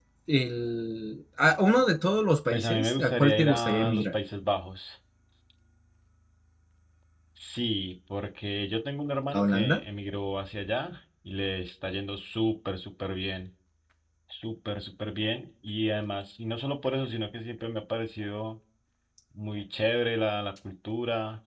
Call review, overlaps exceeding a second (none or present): present